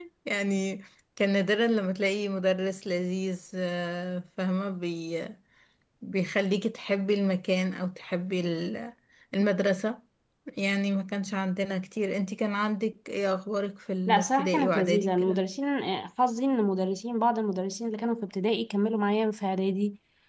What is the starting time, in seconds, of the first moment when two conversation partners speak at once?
14.1 s

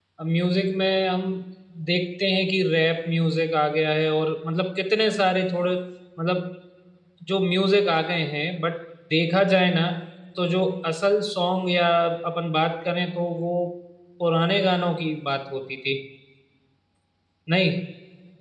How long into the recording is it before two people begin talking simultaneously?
none

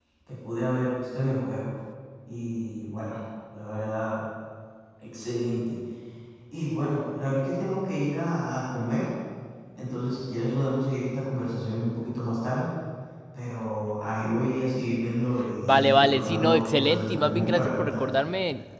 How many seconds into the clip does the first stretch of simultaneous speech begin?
15.4 s

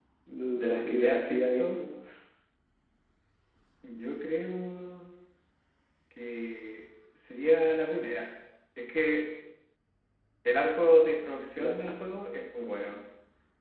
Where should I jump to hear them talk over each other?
0.6 s

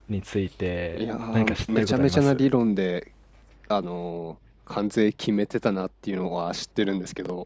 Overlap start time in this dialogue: 0.9 s

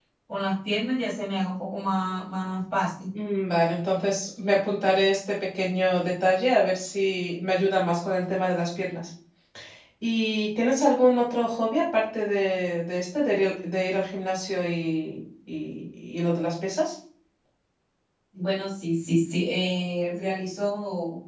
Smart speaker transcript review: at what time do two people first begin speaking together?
none

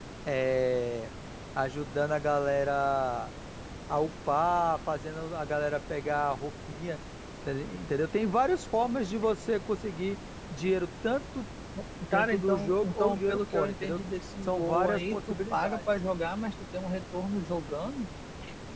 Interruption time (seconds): 12.1 s

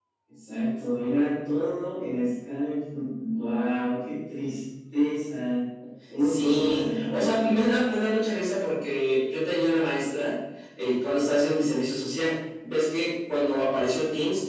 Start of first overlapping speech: 6.2 s

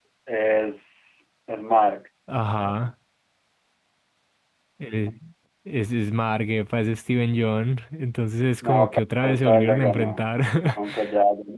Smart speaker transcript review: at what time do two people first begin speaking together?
8.6 s

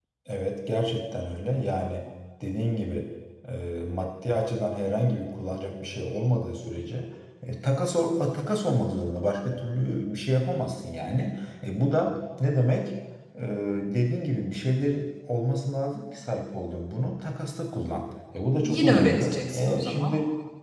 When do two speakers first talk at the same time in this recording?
18.6 s

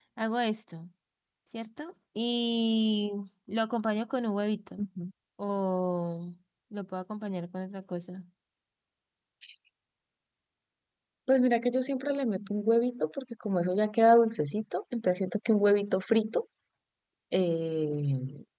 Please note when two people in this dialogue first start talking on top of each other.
none

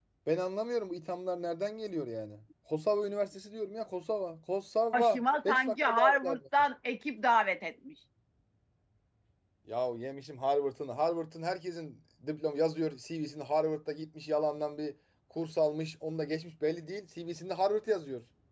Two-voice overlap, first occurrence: 4.9 s

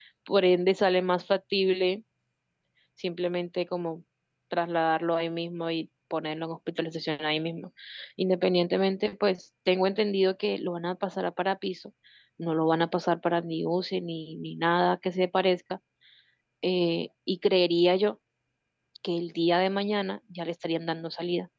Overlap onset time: none

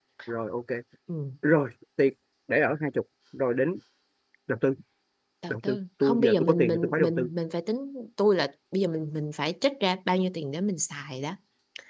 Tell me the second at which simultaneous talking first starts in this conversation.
5.5 s

